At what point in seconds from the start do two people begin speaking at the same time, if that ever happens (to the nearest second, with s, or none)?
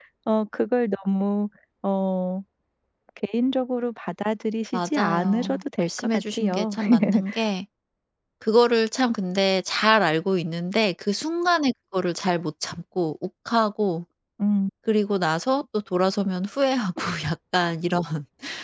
5 s